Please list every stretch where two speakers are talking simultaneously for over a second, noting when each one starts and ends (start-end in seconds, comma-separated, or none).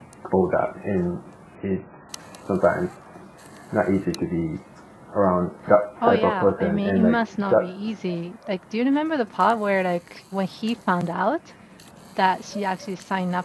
6.0-7.7